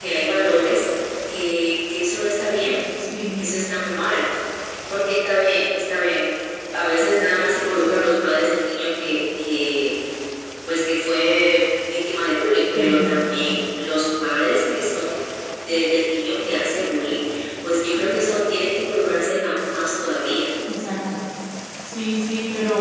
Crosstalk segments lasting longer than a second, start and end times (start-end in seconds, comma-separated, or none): none